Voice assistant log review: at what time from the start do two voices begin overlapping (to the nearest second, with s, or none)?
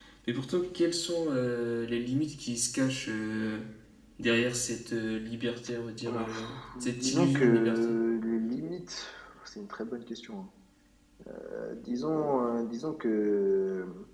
6 s